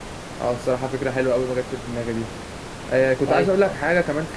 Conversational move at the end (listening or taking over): listening